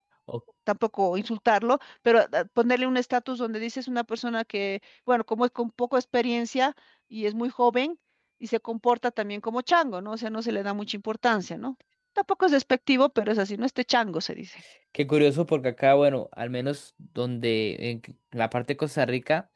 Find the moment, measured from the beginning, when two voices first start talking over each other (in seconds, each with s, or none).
none